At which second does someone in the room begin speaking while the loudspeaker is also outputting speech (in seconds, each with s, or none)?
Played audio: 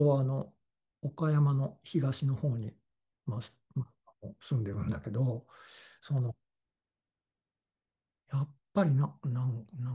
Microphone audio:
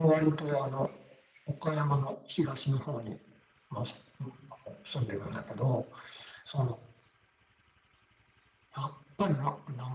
none